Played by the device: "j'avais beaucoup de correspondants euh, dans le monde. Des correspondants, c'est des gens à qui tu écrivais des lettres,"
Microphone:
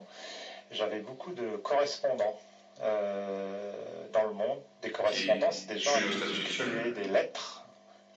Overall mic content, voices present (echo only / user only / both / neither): both